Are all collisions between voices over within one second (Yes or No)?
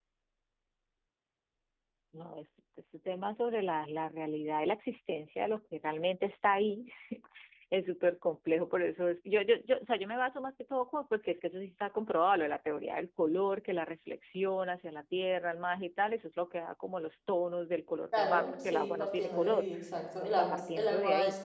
No